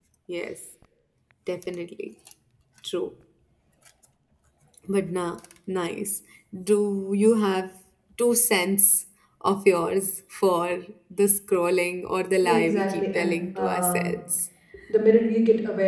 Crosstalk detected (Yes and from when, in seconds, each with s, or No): Yes, from 12.4 s